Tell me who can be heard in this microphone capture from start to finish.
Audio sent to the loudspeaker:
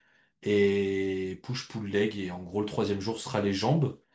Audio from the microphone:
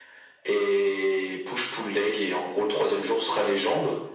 echo only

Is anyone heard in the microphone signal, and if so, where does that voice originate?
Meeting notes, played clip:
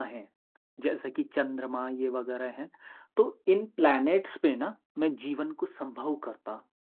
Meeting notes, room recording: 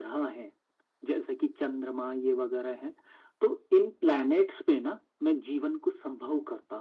echo only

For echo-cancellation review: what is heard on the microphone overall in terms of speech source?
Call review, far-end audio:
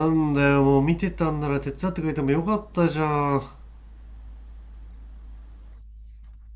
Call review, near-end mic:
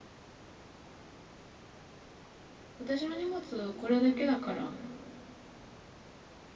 user only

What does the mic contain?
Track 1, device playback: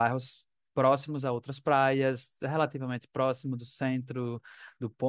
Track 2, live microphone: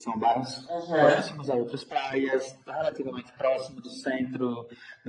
both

